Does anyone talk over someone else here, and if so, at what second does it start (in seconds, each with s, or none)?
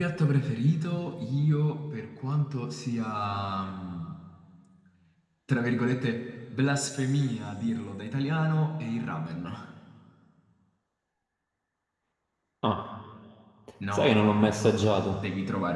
13.9 s